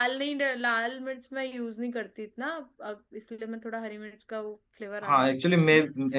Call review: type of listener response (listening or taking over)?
taking over